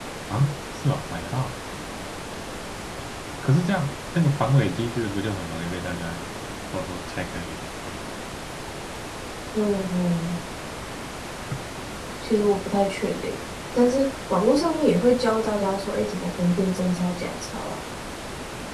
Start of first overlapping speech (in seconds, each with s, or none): none